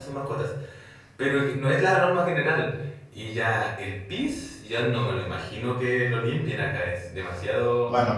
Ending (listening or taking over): taking over